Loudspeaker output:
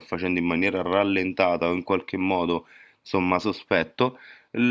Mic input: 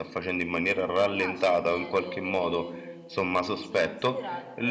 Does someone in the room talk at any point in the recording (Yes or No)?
Yes